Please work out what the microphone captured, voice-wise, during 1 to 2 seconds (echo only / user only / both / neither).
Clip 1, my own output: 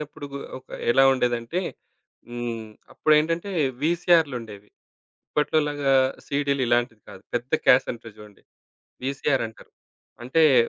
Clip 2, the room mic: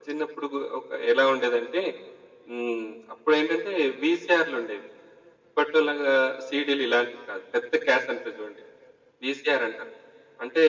echo only